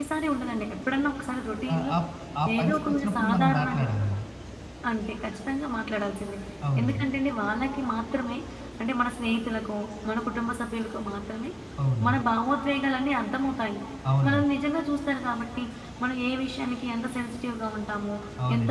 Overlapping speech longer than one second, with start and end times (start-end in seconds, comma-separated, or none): 2.5-3.9